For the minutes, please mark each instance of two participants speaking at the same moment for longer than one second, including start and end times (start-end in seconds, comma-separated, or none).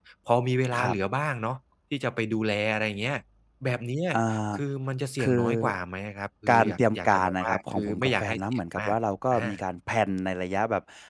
6.5-8.9